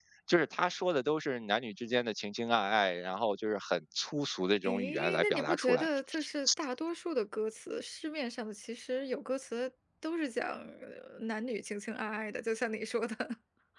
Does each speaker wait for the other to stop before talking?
No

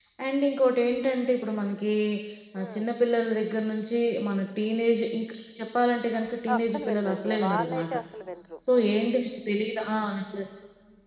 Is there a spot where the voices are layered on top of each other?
Yes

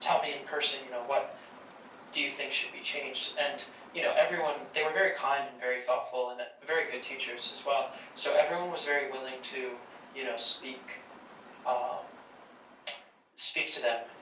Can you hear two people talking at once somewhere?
No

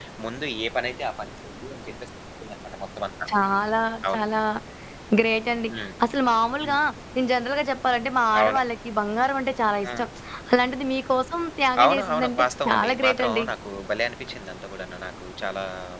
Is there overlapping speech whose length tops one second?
Yes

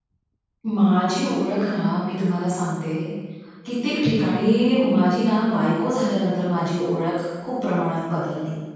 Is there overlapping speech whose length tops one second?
No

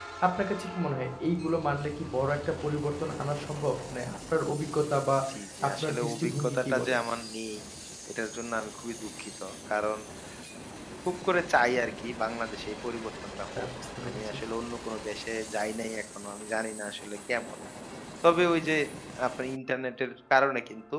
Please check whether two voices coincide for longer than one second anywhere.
Yes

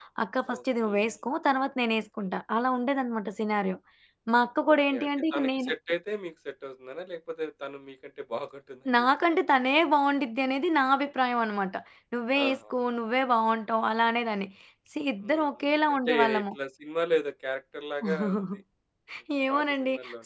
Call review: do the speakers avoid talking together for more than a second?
No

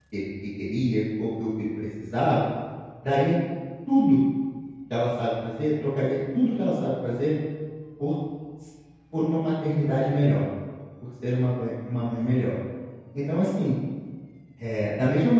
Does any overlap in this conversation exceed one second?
No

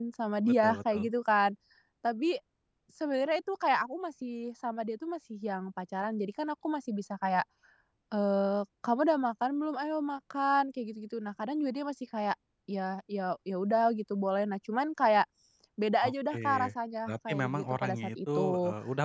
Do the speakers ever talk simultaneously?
Yes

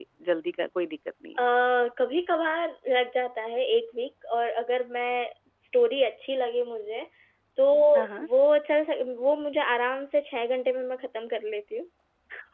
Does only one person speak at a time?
Yes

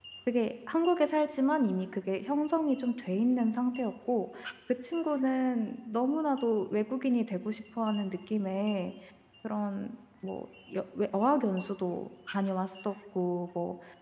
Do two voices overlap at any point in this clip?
No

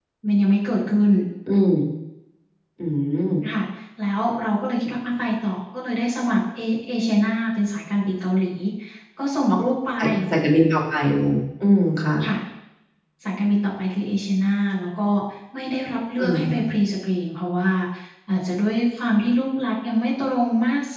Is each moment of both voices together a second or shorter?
Yes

